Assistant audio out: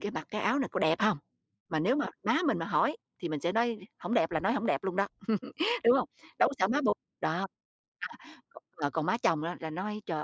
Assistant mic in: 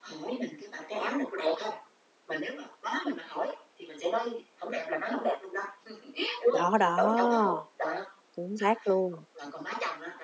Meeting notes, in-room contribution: present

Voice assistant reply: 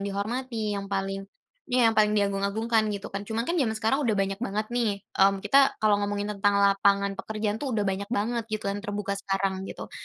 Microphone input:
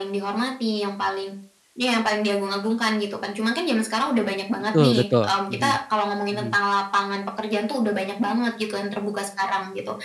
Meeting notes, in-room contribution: present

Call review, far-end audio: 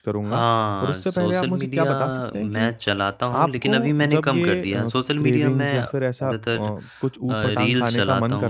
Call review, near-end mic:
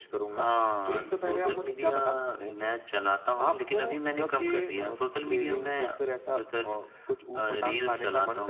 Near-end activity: present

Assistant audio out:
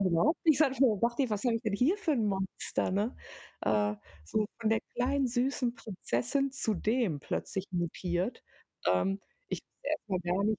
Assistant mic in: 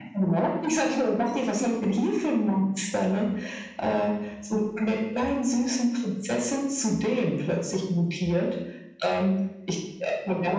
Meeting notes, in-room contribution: none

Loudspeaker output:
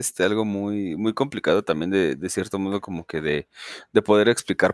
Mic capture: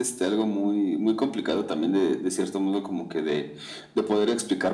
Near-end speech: none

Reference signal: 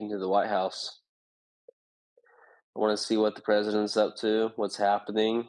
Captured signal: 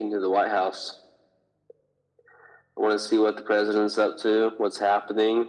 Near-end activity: none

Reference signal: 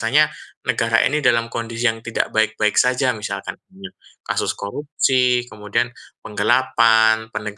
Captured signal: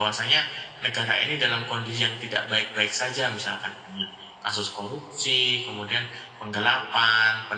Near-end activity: none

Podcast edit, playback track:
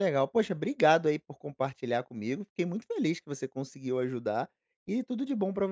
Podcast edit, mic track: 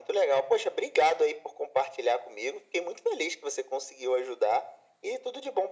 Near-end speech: none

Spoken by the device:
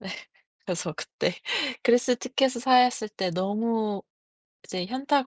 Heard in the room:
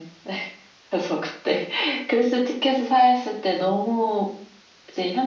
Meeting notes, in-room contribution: none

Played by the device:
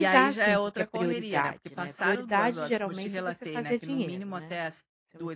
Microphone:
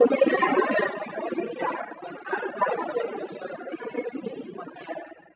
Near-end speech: none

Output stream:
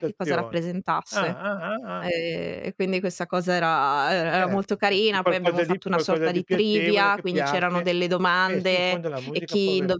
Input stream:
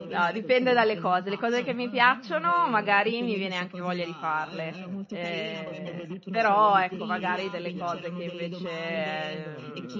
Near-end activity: present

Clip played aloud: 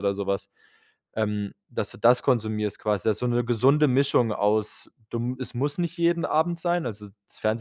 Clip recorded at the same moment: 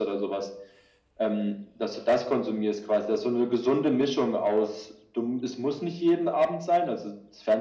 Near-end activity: none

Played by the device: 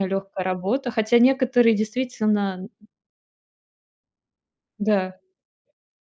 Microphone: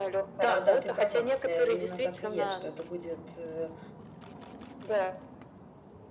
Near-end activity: present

